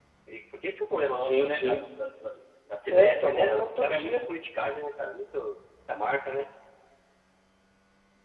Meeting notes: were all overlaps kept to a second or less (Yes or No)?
No